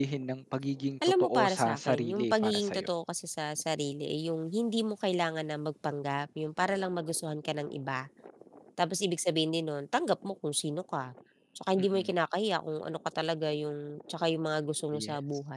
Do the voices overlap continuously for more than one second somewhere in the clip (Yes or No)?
Yes